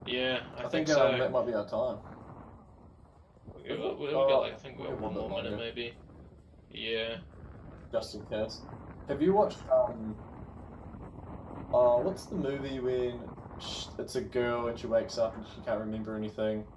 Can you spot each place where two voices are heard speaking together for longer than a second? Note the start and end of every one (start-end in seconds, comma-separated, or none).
3.7-5.6